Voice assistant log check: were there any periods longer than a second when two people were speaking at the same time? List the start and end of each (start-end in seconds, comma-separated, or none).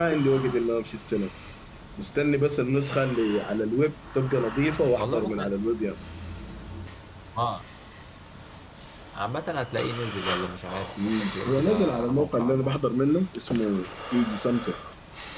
11.0-12.8